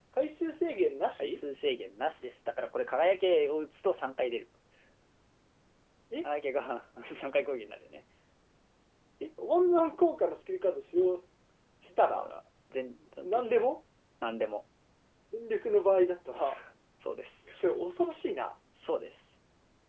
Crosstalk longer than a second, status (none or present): none